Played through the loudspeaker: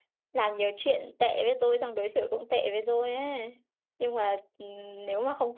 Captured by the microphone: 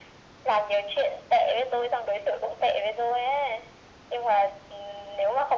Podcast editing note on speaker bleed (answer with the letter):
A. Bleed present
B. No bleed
A